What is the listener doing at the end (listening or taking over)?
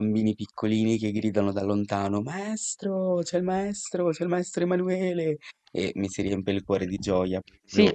taking over